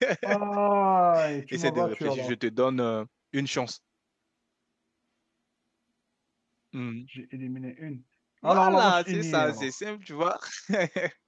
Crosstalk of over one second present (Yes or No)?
Yes